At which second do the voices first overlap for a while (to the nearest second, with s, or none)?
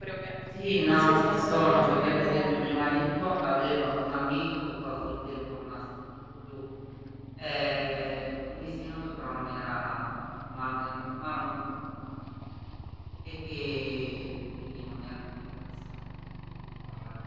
1 s